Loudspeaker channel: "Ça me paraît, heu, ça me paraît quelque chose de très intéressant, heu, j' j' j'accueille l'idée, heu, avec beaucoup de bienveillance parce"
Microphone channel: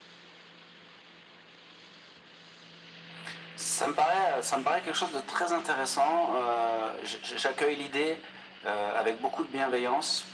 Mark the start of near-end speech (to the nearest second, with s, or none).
none